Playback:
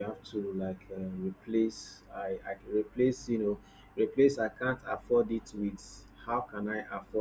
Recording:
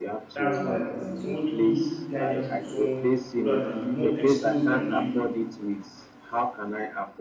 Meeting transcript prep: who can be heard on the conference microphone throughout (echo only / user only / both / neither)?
both